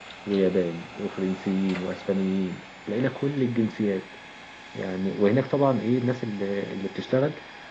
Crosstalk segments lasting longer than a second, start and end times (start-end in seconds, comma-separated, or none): none